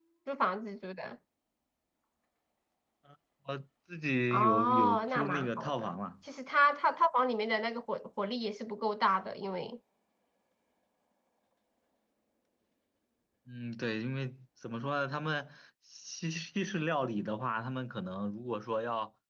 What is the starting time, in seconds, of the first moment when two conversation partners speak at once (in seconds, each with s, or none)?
4.3 s